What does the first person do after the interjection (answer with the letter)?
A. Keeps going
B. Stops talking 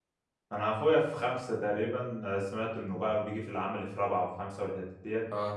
A